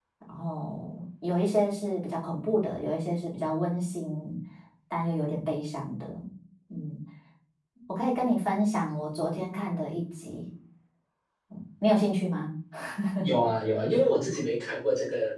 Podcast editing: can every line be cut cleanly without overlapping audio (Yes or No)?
Yes